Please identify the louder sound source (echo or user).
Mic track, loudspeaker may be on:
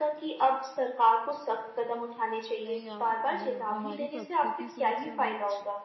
echo